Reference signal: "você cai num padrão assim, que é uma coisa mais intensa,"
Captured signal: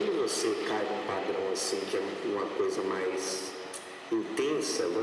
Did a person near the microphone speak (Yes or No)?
No